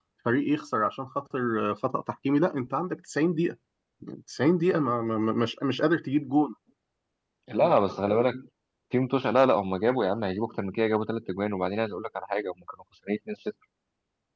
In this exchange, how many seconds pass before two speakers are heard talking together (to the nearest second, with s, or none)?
none